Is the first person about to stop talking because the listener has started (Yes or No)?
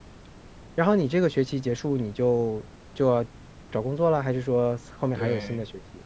Yes